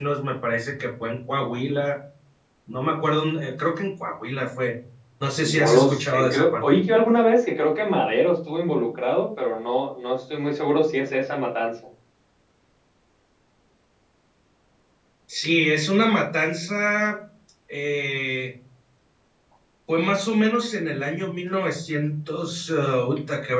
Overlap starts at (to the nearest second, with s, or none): 5 s